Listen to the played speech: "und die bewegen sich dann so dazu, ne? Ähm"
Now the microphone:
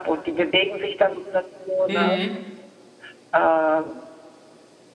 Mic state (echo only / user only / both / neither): both